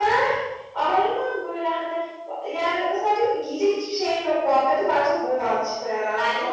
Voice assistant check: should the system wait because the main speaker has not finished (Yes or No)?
No